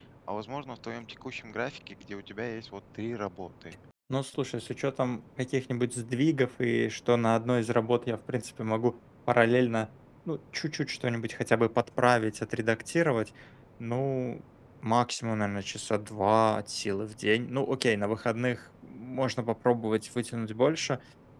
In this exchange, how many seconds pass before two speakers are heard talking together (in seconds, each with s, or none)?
none